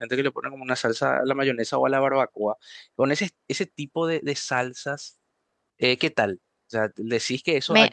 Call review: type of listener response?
listening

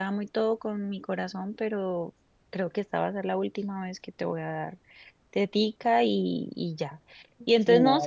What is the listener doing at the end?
listening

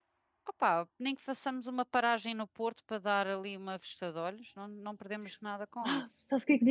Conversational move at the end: taking over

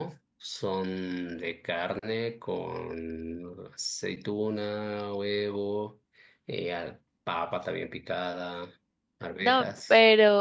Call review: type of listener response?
taking over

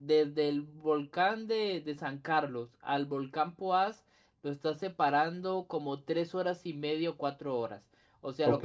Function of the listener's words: listening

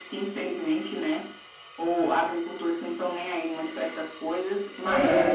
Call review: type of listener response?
listening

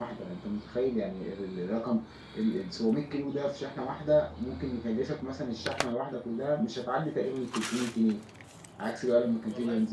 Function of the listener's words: listening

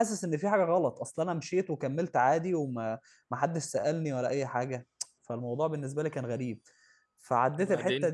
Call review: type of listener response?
listening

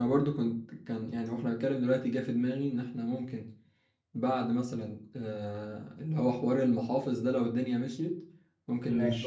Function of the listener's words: listening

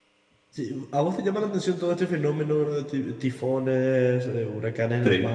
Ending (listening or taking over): listening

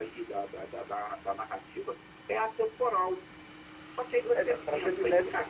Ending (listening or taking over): taking over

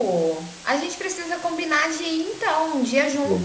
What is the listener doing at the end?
taking over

